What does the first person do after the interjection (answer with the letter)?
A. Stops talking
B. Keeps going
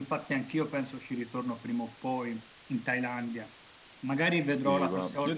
A